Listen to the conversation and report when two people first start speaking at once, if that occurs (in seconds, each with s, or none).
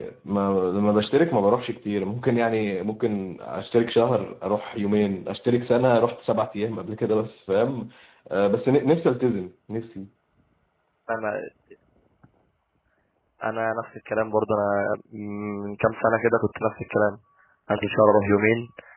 none